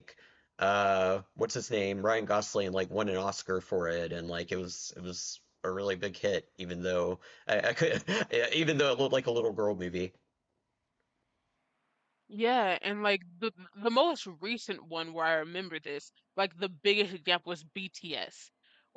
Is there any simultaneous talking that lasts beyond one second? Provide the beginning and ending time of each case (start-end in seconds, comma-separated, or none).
none